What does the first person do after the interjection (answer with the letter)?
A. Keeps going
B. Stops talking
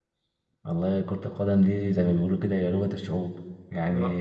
A